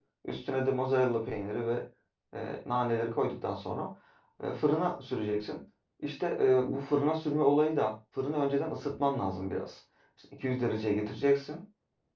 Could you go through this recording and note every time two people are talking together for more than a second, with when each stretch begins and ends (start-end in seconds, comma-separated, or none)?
none